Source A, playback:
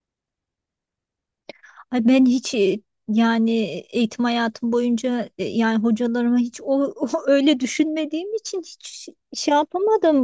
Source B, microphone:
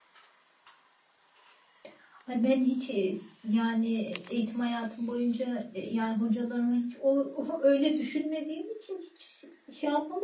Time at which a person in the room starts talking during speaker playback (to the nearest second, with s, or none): none